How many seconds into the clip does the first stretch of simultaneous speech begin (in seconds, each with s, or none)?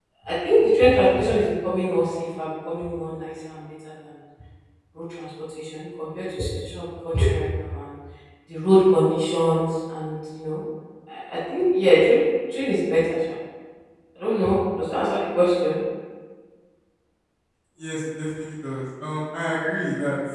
none